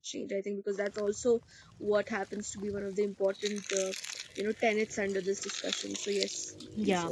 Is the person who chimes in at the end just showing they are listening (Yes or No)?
No